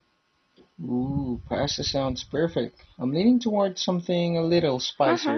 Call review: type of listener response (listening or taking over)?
taking over